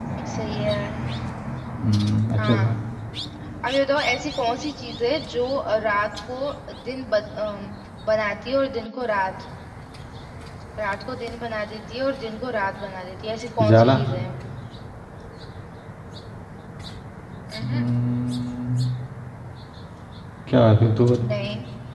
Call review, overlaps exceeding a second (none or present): none